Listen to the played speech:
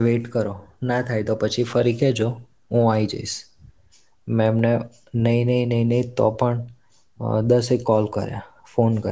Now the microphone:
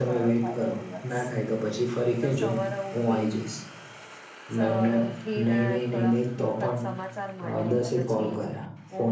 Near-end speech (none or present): present